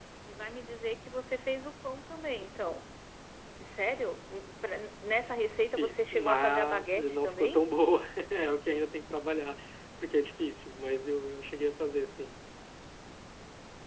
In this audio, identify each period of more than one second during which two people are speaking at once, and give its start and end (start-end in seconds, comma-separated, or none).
5.8-7.6